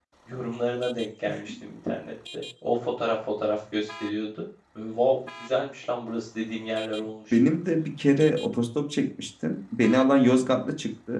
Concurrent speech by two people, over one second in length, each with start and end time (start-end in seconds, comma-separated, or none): none